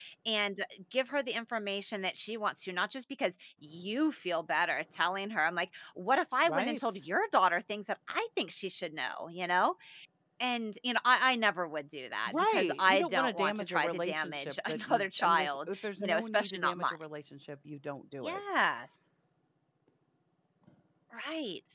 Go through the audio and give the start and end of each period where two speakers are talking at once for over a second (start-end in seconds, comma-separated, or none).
12.3-16.9